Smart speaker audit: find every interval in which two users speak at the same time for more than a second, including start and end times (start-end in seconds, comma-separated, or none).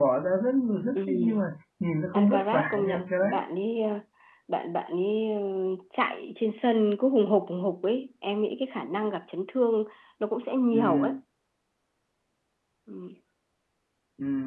2.1-3.4